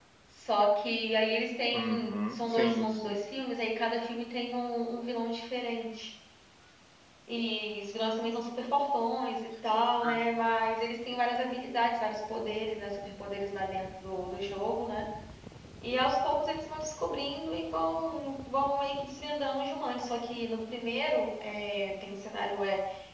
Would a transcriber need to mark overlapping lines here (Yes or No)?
Yes